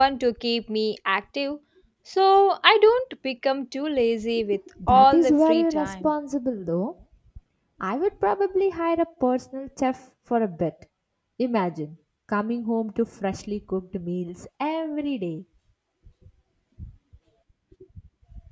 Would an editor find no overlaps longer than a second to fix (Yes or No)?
No